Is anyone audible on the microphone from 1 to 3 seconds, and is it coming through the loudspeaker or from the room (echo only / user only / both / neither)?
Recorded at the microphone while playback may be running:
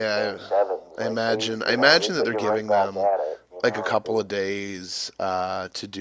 both